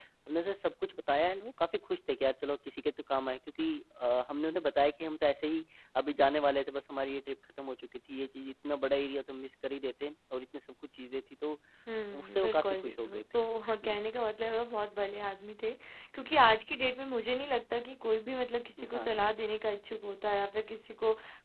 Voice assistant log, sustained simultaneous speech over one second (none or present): present